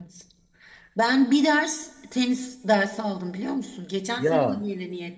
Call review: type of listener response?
listening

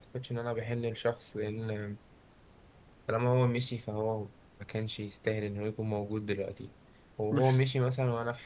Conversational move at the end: listening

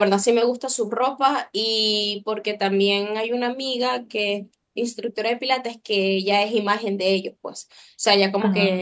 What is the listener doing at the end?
listening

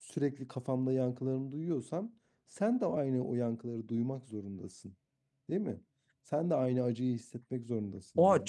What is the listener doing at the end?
taking over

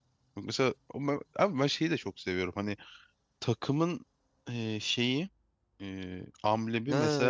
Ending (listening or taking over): taking over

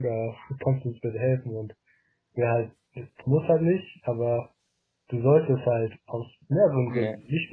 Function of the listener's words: listening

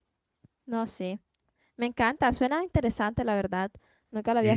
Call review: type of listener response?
taking over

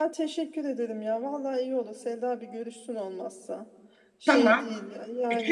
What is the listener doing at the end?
taking over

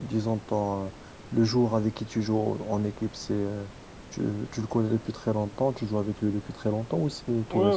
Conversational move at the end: taking over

